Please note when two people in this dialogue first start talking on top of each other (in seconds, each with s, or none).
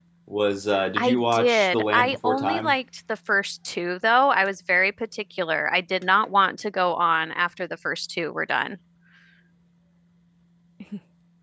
1.0 s